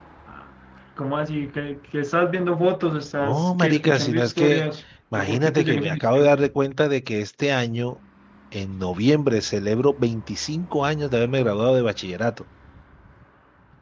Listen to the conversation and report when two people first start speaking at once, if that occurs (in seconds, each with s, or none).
3.2 s